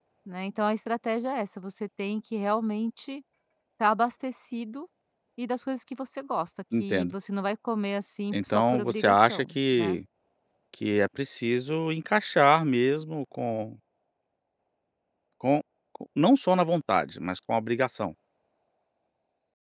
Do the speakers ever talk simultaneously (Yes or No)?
Yes